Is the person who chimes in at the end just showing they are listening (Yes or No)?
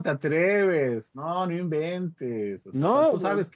Yes